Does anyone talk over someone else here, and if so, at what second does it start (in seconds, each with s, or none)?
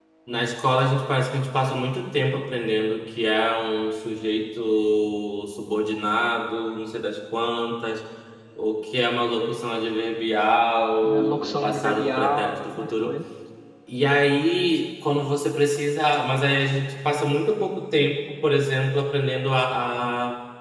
11.0 s